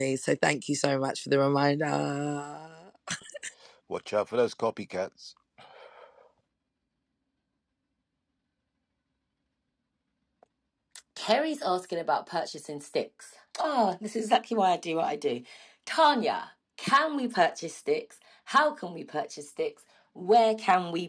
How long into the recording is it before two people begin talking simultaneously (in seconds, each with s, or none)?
none